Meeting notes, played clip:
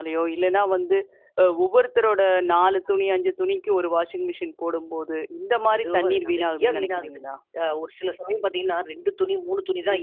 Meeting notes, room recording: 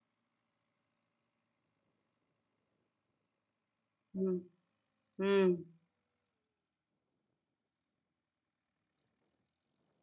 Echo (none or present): none